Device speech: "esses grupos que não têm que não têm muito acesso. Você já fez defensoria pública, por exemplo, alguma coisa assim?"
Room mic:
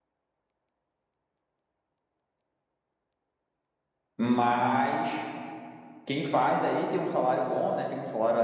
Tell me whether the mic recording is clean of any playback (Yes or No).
Yes